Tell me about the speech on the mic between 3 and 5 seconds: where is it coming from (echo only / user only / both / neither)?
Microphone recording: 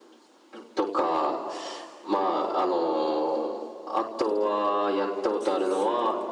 echo only